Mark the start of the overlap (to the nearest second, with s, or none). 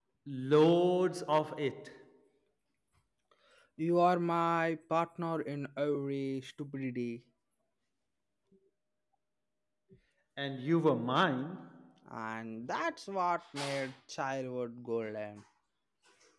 none